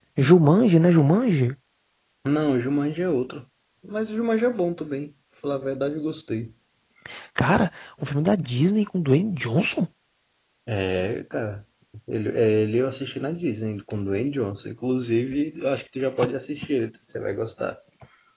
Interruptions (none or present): none